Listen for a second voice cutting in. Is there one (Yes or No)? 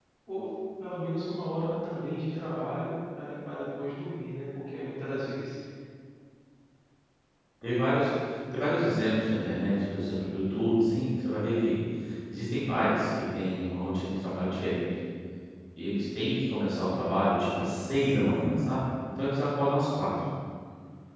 No